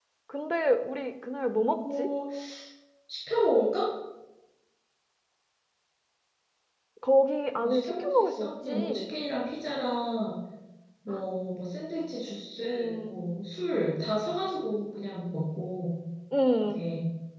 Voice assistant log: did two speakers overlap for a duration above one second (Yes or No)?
Yes